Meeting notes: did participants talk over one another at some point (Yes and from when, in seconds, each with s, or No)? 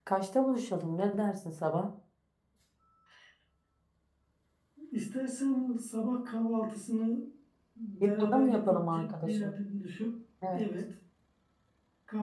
Yes, from 8.2 s